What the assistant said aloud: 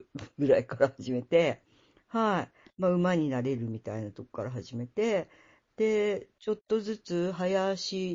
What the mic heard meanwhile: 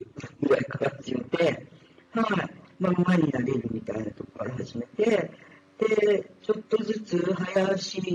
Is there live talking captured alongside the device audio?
No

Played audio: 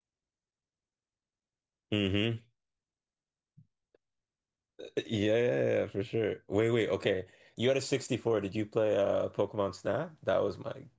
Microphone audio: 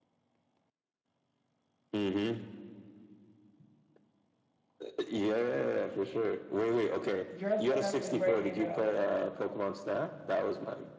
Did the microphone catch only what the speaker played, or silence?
No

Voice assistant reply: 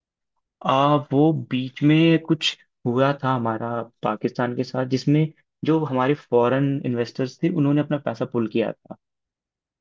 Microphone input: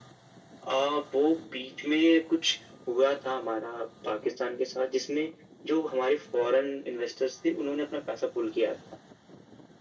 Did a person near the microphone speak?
No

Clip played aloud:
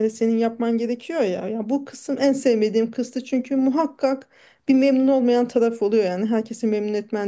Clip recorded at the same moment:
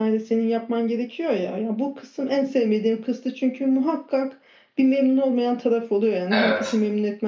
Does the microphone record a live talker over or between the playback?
Yes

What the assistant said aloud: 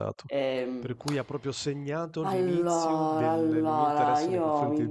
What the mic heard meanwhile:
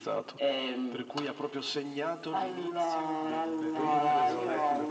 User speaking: Yes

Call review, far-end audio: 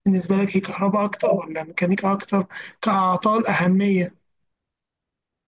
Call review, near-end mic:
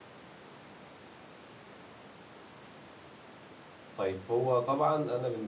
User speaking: Yes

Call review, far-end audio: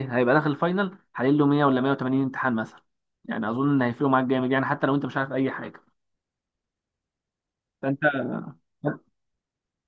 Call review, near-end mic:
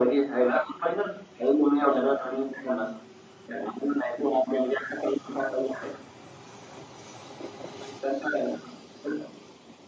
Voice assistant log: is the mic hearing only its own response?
Yes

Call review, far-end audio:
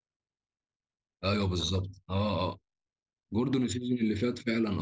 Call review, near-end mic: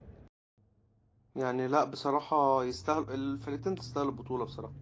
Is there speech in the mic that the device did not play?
Yes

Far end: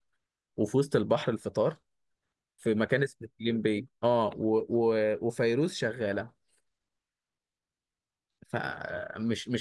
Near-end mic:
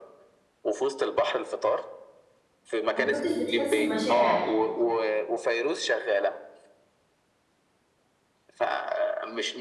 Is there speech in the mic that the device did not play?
Yes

